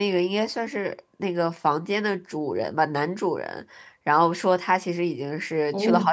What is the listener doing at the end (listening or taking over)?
listening